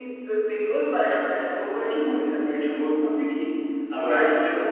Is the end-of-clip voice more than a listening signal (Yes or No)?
No